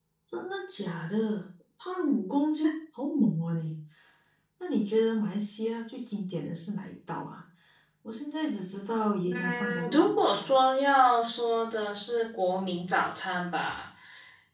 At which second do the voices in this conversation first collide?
9.3 s

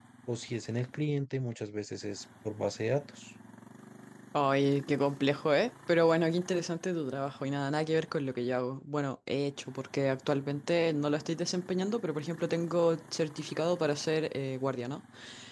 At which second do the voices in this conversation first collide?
none

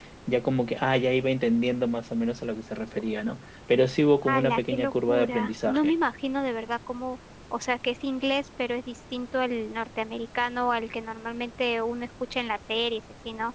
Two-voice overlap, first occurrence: 4.2 s

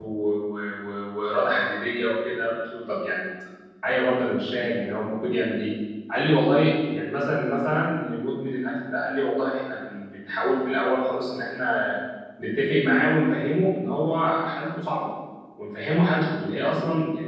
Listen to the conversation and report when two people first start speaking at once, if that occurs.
none

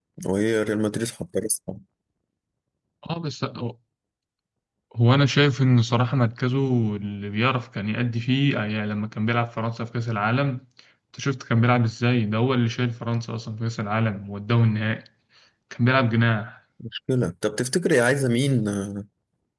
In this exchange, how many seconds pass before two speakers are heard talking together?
none

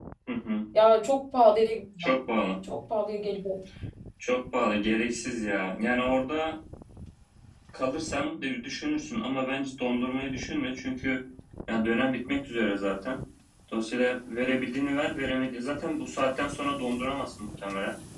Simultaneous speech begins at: none

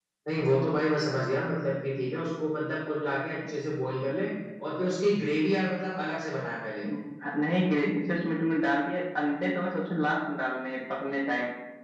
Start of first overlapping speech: none

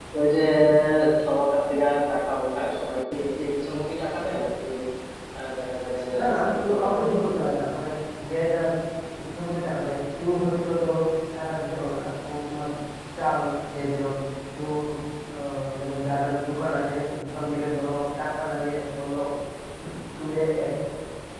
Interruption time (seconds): 6.2 s

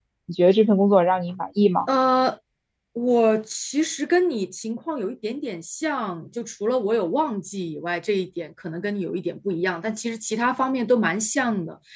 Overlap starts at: none

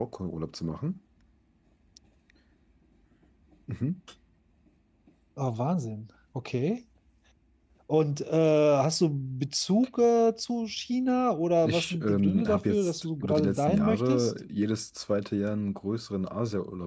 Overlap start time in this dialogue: 11.6 s

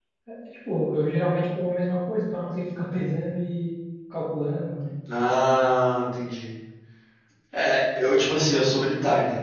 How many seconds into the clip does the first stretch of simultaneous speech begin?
none

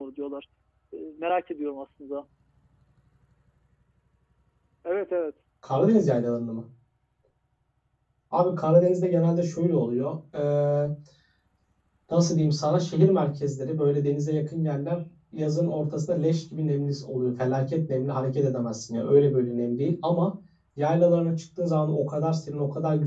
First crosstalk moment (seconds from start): none

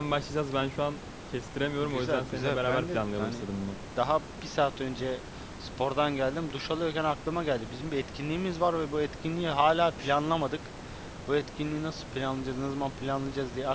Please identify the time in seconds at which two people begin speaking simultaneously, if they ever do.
1.8 s

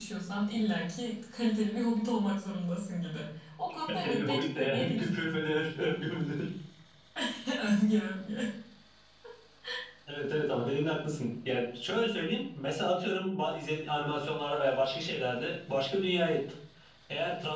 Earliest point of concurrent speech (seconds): 3.9 s

